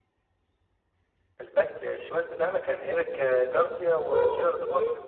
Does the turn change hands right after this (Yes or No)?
Yes